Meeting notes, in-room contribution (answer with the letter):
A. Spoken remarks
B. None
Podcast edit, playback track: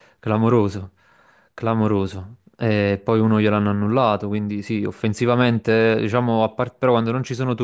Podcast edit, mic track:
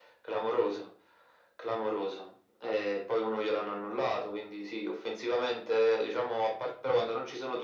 B